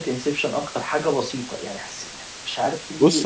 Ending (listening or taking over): taking over